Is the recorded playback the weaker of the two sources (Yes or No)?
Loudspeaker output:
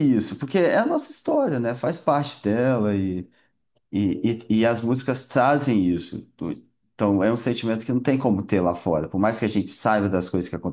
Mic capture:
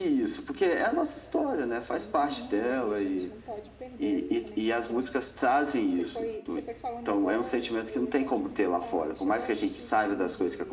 No